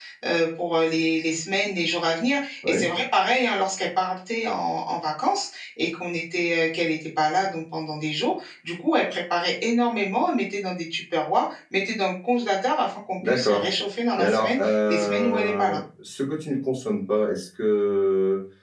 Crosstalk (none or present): present